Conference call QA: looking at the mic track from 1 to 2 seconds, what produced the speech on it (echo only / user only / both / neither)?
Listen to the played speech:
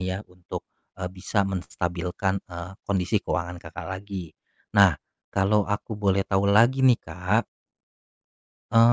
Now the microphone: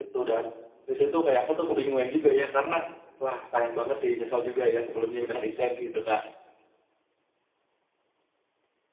user only